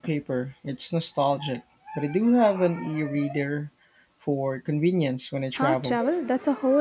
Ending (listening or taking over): taking over